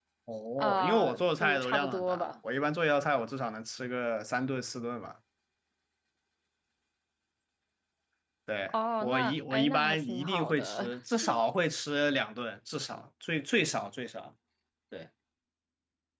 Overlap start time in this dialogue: 0.6 s

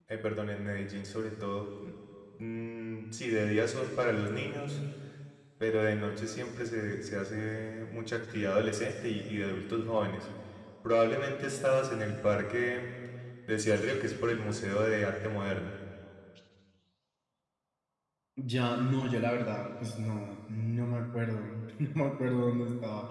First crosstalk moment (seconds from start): none

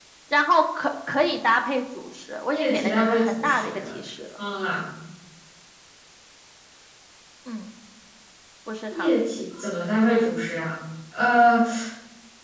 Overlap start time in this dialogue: 2.5 s

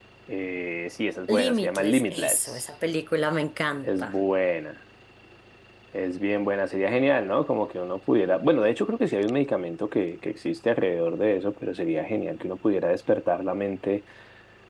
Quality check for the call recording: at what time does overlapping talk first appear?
1.3 s

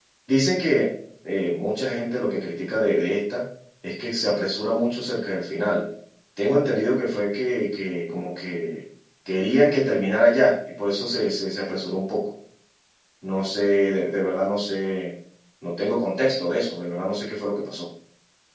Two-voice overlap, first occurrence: none

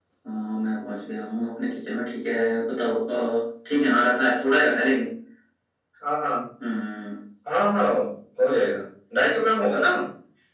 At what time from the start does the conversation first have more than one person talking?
none

